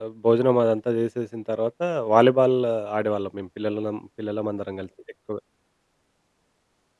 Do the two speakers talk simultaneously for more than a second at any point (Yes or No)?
No